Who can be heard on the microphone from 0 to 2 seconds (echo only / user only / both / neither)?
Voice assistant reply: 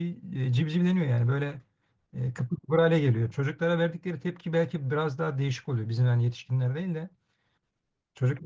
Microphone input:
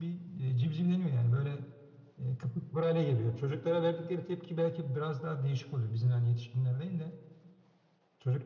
echo only